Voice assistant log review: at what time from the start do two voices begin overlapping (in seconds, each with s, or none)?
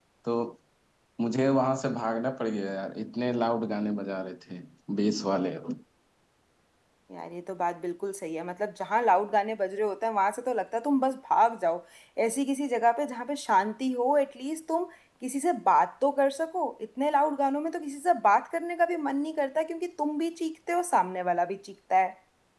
none